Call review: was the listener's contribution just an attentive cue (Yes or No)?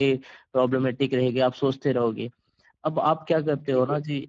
Yes